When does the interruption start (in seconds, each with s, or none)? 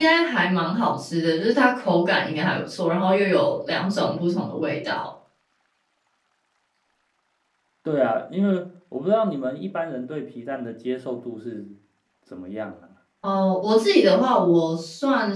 none